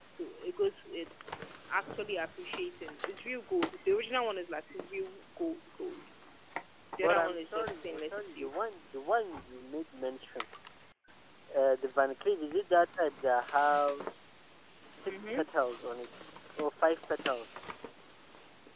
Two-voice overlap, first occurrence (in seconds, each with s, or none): 7.0 s